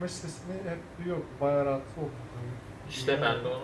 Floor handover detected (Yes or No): Yes